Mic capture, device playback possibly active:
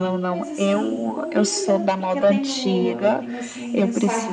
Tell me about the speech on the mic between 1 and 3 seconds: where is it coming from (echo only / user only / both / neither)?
both